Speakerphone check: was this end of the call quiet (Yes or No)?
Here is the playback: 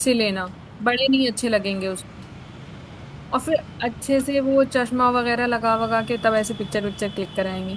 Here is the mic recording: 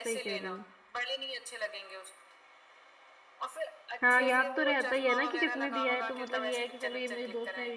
No